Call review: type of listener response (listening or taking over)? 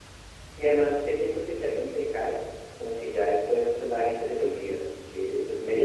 taking over